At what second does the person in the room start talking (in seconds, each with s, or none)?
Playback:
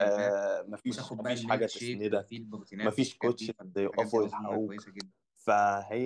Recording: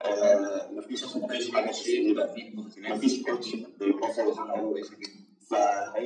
none